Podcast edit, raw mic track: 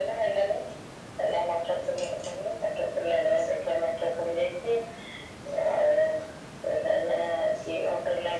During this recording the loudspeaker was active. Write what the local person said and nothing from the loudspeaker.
none

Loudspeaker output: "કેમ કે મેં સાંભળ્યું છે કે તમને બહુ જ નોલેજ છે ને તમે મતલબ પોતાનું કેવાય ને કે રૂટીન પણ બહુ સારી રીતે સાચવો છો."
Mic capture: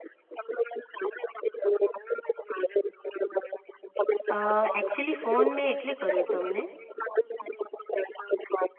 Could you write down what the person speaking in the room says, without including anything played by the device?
અ એકચુલી ફોન મેં એટલે કર્યો તમને

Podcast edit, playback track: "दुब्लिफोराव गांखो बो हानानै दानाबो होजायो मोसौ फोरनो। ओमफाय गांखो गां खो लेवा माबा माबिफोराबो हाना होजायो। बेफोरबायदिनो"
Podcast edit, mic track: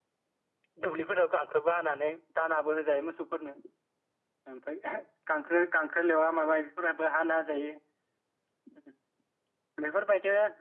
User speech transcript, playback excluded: none

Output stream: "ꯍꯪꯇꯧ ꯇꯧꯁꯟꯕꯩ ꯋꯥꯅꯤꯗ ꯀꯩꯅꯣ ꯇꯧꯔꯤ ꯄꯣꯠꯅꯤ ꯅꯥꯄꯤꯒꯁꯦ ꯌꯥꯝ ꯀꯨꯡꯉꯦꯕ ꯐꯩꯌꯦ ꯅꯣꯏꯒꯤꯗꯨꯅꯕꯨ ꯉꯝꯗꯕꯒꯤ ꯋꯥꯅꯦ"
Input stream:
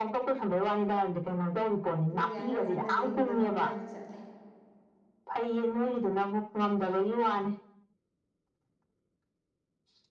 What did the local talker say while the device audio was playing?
ꯑꯗꯨꯒꯤ ꯑꯅꯝꯕꯅ ꯂꯤꯡꯕꯔꯣꯝꯗ ꯑꯣꯏꯅ ꯆꯠꯂꯦ

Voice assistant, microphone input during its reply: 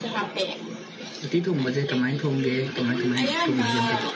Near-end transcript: ꯎꯇꯤ ꯊꯣꯡꯕꯁꯦ ꯀꯃꯥꯏ ꯊꯣꯡꯒꯦ ꯀꯃꯥꯏ ꯀꯃꯥꯏ ꯊꯣꯡꯅꯒꯦ ꯑꯝꯇ

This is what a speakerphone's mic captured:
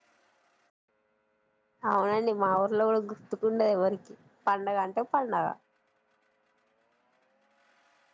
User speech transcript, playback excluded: అవునండి మాఊ లో గుర్తుకుండ ఎవరికి పండుగ అంటే పండుగ

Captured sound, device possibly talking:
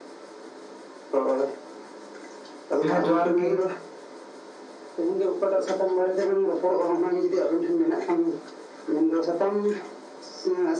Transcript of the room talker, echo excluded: ᱦᱮᱸ ᱡᱚᱦᱟᱨ ᱜᱮ

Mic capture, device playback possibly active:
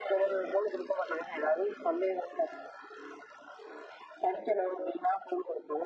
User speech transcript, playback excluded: none

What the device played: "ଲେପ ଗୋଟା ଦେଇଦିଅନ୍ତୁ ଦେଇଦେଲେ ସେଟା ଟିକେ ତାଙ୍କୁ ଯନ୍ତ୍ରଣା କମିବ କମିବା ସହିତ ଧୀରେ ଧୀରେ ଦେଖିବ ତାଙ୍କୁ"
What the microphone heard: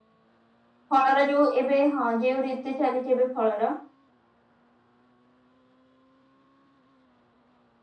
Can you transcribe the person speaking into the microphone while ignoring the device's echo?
ଫଳର ଯୋଉ ଏବେ ହଁ ଯୋଉ ଋତୁ ଚାଲିଛି ଏବେ ଫଳର

